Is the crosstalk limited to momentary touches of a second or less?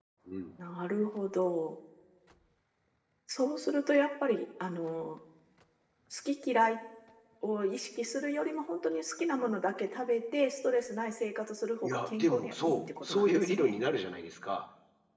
No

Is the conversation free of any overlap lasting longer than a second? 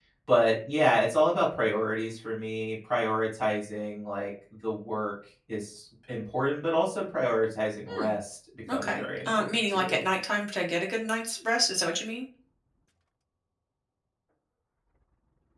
No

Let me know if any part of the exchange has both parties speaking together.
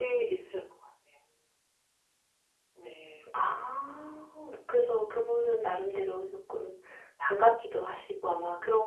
No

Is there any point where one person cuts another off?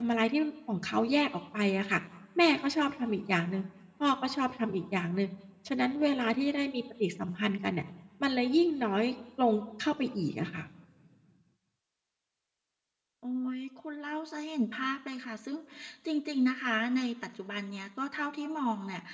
No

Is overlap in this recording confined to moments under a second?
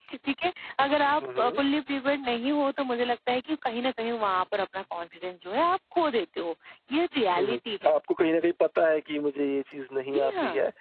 Yes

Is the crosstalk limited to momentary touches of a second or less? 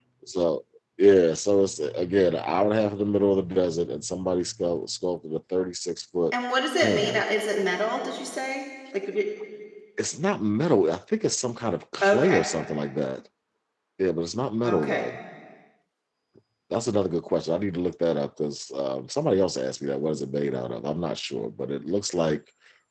Yes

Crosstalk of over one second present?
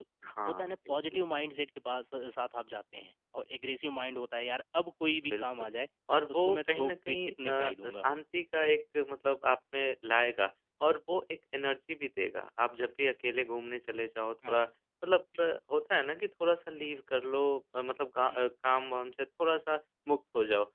Yes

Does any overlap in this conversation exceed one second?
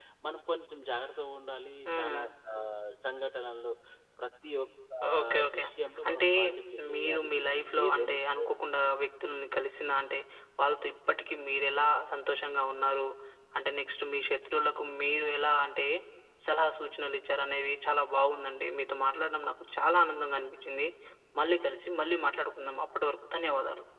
Yes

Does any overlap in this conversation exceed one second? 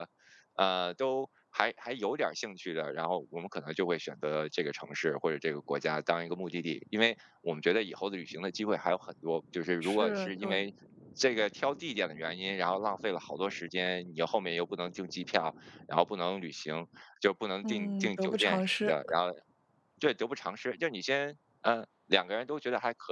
Yes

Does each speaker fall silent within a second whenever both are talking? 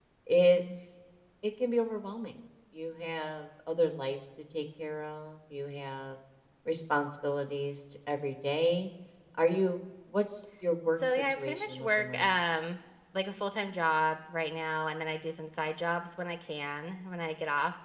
No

